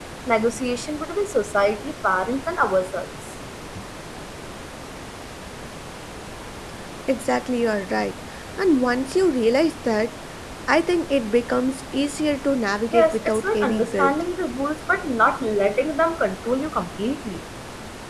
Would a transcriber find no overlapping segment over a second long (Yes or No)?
No